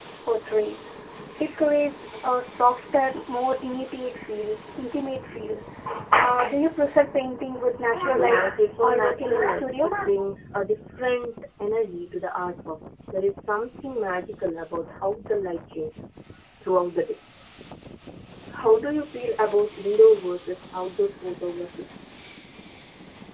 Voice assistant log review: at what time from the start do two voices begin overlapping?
8.0 s

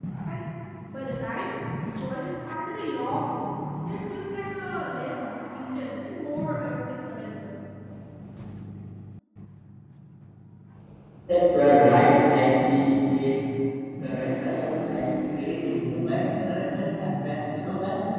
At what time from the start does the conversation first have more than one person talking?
none

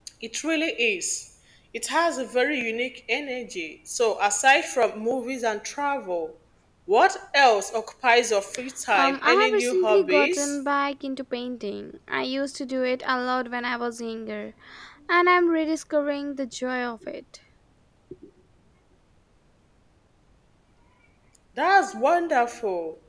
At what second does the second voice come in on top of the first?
8.9 s

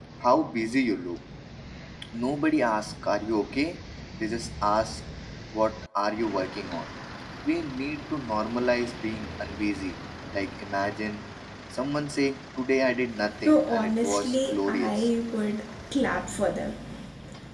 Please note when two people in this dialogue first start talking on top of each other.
13.4 s

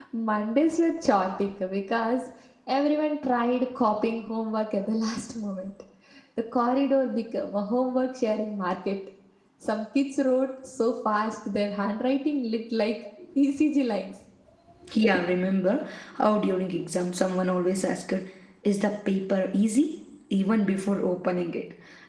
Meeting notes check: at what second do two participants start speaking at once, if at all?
none

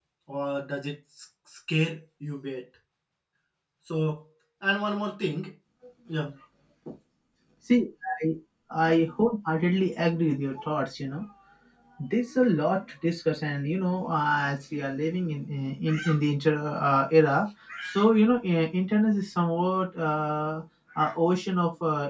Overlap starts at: none

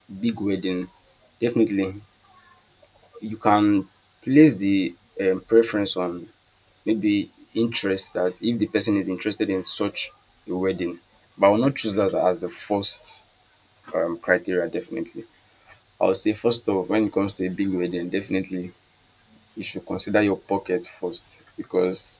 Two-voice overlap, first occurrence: none

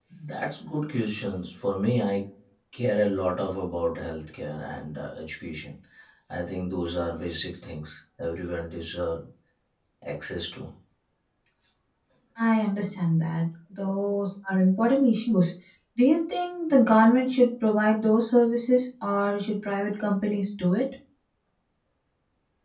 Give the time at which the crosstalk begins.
none

